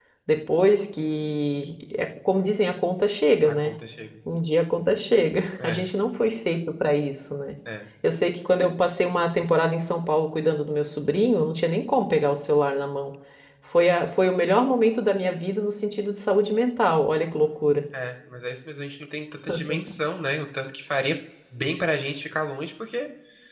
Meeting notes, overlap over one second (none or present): none